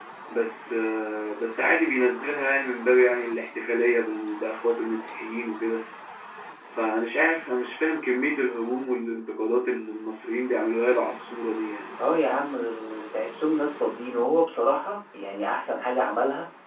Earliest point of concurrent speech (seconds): none

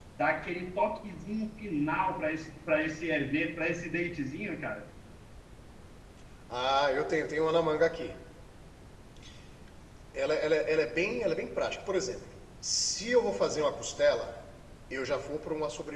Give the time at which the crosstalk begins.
none

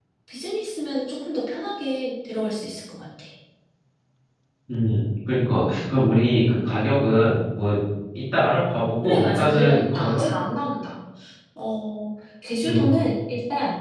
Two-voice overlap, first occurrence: 9.0 s

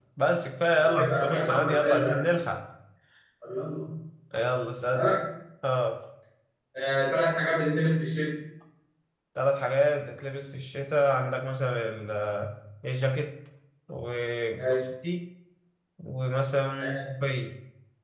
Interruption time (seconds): 0.8 s

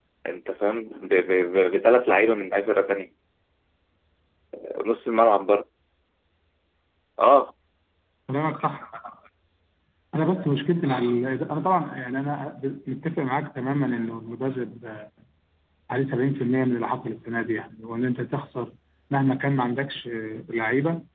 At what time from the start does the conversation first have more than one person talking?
none

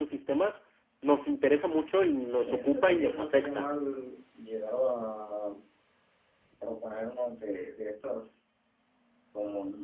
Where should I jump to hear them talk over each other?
2.4 s

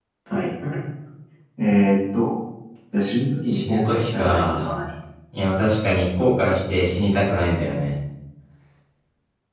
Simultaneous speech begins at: 3.5 s

